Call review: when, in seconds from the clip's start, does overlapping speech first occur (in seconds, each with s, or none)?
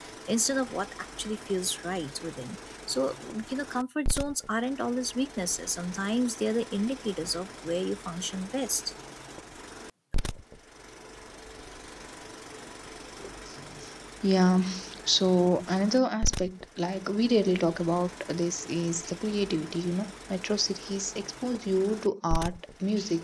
none